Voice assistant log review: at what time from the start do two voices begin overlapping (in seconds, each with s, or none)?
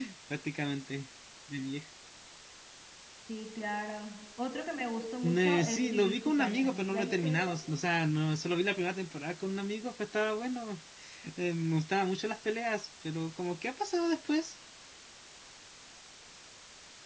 5.2 s